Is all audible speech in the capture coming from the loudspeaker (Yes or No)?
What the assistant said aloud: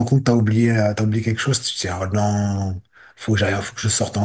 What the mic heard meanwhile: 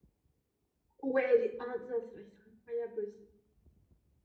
No